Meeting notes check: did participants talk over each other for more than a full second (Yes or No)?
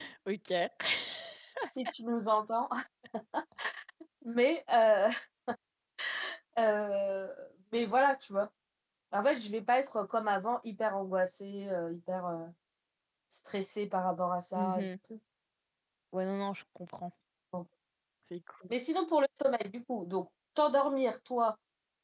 No